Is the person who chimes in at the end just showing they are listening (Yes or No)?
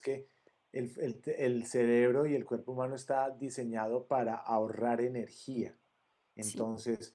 Yes